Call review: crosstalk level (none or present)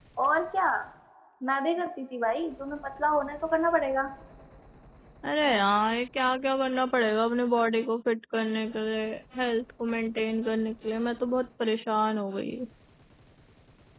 none